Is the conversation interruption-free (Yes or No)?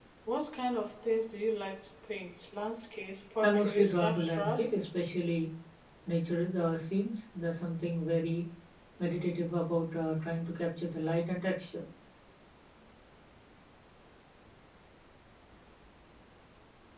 No